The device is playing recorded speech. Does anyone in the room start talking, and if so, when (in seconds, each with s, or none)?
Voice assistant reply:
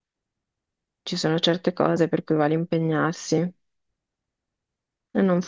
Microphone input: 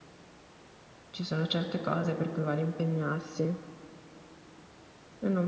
none